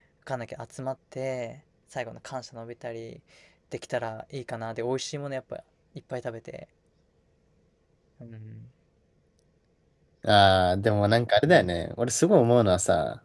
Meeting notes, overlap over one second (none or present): none